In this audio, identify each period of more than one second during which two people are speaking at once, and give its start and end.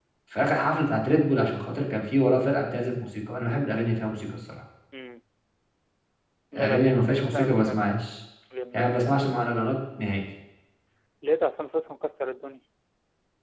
6.5-7.8

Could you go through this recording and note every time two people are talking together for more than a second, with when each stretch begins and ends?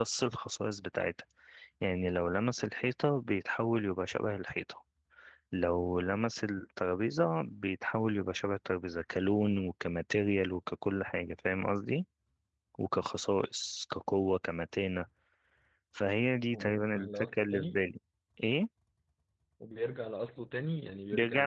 16.5-17.8

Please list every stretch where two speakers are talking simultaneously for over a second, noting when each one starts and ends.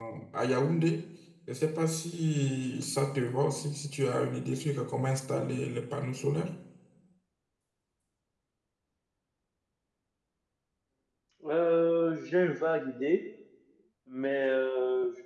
none

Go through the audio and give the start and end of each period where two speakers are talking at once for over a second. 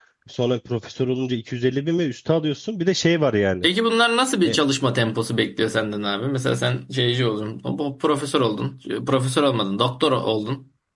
none

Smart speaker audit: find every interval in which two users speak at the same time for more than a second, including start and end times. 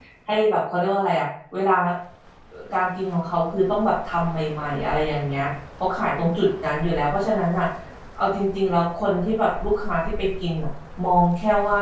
none

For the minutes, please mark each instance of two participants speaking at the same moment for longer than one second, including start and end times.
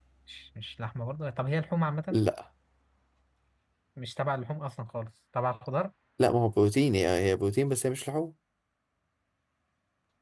none

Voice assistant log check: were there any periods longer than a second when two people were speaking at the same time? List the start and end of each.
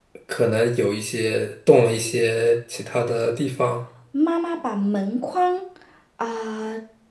none

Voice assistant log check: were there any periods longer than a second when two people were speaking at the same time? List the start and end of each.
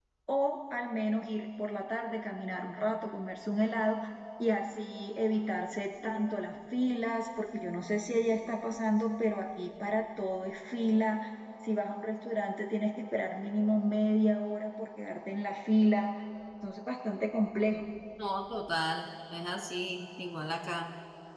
none

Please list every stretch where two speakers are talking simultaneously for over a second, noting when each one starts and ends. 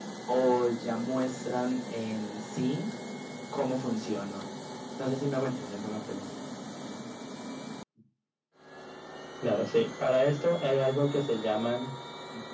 none

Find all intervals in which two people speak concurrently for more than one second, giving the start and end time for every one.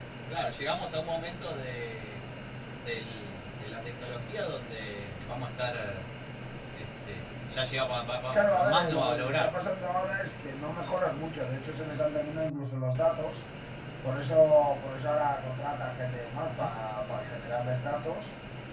8.3-9.5

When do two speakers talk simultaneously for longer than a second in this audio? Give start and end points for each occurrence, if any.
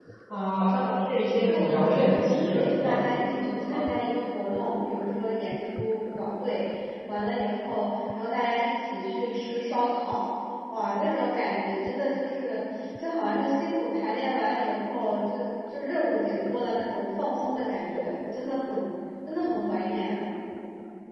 1.5-3.0

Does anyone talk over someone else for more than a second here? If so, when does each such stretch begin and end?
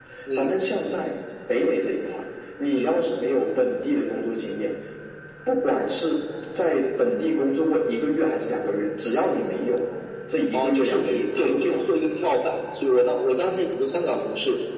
10.5-11.9

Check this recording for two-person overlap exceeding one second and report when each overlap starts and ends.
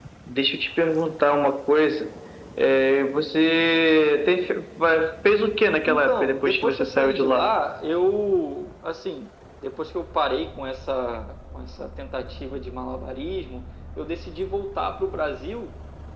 5.8-7.5

